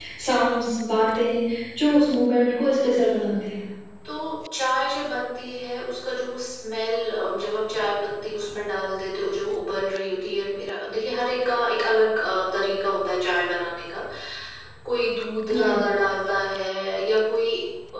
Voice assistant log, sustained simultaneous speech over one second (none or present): none